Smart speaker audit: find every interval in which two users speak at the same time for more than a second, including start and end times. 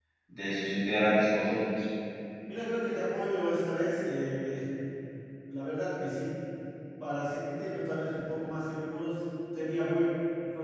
none

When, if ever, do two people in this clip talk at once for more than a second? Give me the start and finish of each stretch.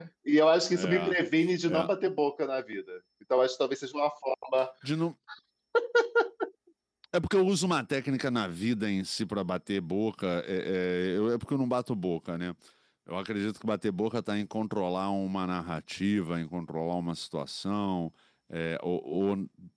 none

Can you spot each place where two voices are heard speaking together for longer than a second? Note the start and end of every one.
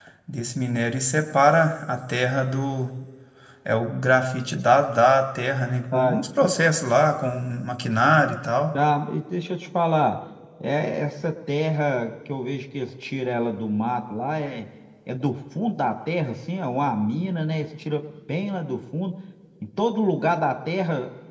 none

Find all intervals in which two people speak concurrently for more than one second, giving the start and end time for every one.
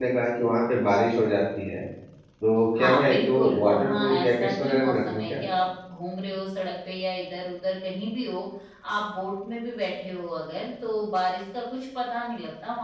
2.8-5.3

